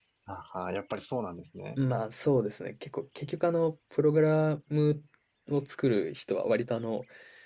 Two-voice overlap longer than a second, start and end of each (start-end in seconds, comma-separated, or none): none